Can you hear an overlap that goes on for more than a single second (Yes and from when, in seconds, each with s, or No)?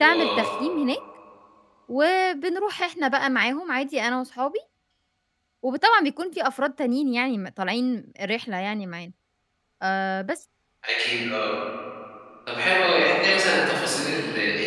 No